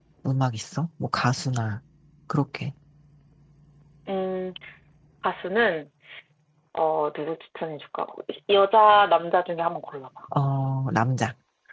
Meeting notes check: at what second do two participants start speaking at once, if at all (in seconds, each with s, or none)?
none